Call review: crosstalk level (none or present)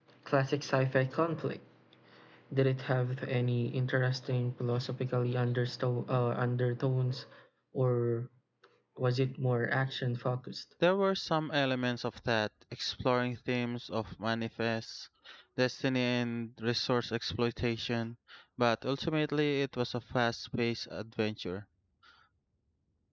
none